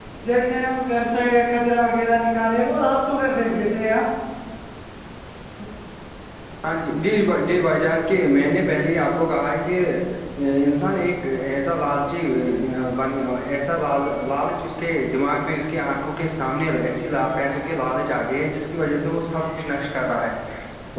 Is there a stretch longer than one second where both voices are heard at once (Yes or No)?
No